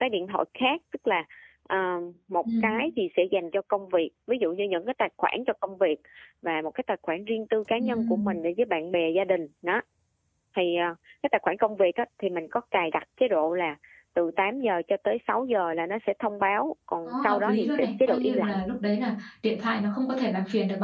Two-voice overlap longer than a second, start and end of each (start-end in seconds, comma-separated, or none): 17.1-18.6